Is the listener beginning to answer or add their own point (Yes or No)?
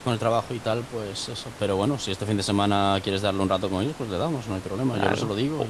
Yes